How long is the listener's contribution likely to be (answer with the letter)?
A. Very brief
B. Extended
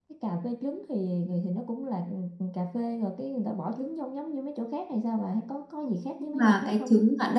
B